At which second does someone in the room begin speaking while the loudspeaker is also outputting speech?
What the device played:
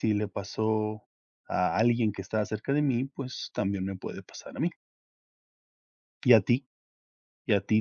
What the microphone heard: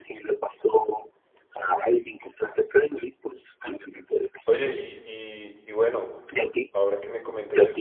4 s

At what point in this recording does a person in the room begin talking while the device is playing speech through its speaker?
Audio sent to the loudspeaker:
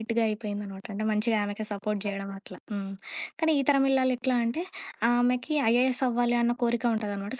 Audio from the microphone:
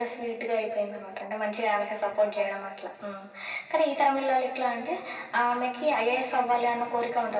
none

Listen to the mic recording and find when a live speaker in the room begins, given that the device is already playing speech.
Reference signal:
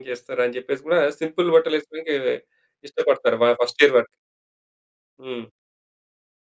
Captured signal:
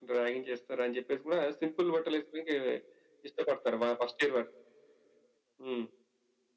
none

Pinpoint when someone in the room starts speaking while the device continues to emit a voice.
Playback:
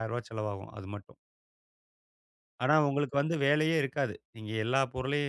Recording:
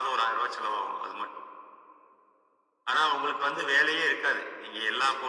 none

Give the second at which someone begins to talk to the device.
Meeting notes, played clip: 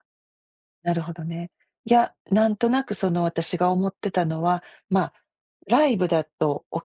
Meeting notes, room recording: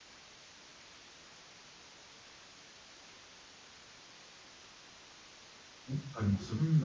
6 s

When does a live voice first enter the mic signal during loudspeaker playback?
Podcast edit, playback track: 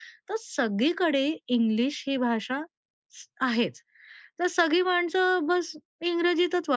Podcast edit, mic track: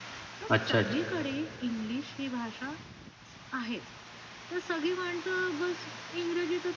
0 s

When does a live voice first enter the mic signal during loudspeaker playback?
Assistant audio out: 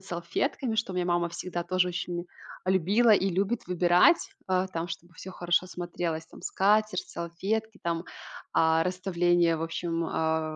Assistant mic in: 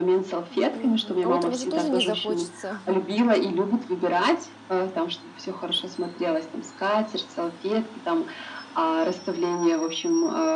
0 s

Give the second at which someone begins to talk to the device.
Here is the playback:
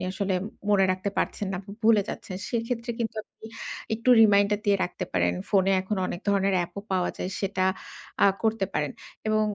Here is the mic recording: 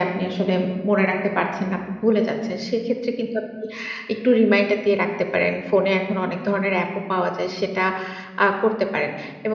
none

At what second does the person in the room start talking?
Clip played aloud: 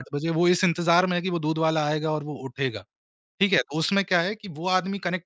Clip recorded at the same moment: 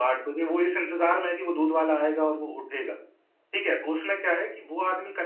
none

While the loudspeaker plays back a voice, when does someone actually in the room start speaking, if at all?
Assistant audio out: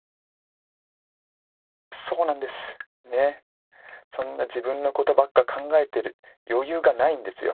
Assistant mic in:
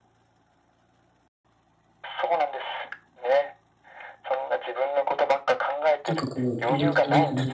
6 s

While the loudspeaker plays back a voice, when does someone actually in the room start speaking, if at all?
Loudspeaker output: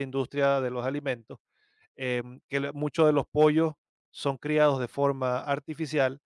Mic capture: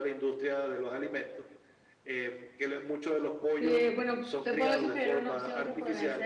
4 s

